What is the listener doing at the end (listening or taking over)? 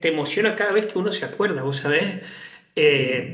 listening